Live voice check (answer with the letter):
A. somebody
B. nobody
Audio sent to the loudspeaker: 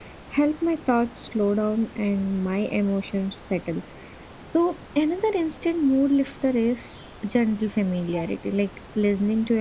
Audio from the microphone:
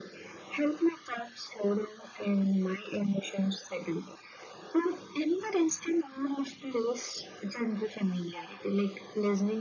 B